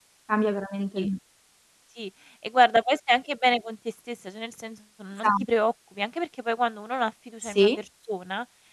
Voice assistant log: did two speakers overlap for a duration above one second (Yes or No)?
No